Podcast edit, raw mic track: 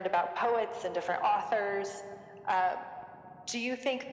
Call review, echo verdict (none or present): present